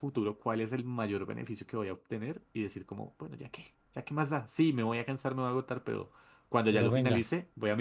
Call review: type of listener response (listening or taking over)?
listening